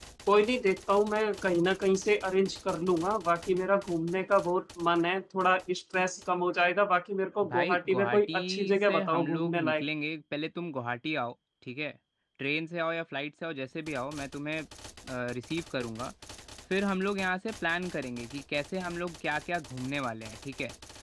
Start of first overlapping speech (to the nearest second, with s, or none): 7 s